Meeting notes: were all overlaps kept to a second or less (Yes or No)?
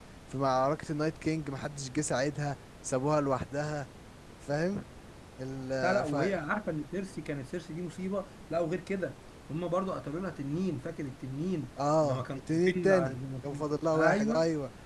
No